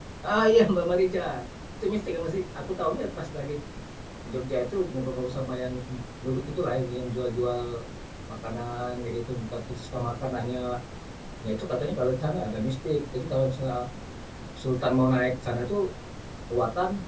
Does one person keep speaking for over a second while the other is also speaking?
No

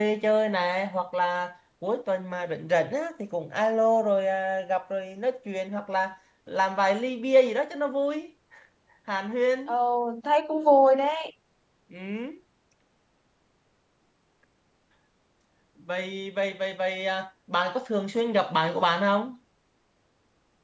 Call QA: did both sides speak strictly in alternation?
Yes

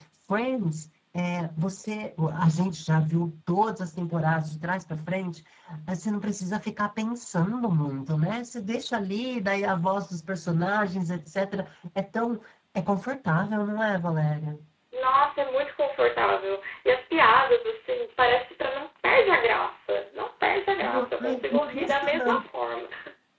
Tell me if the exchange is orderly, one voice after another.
No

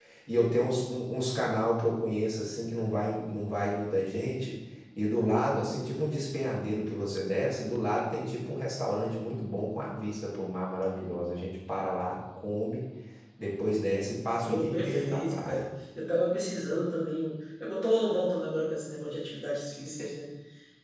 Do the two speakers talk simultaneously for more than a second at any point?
Yes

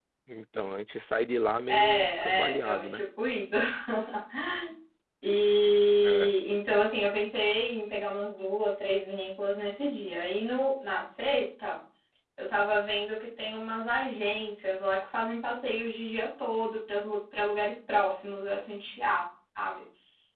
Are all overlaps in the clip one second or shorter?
No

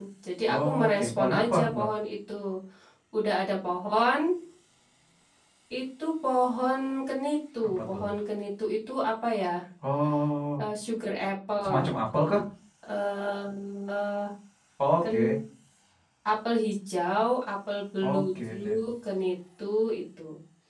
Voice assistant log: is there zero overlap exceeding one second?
No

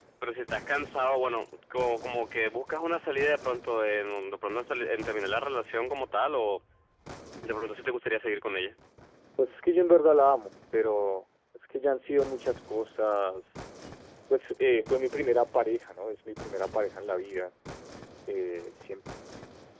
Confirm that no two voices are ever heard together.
Yes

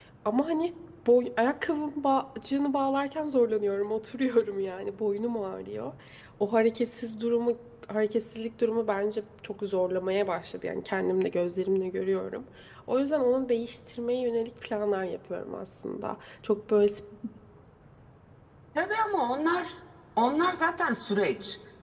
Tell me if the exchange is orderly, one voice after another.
Yes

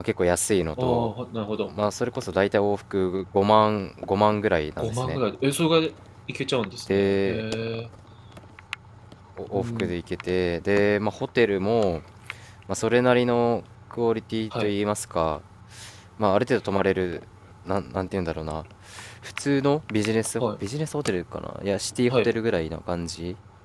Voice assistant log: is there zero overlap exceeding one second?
Yes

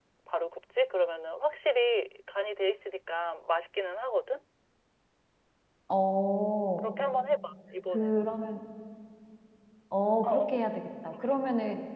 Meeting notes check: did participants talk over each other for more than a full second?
No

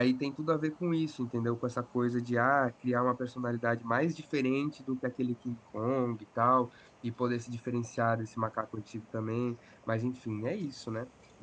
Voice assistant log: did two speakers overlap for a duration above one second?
No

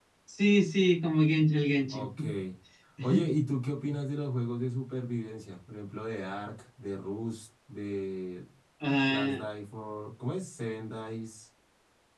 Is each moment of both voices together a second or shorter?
Yes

